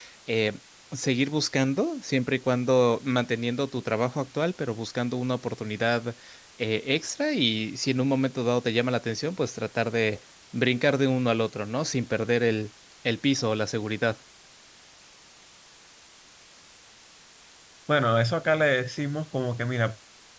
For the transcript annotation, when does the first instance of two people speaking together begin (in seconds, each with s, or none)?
none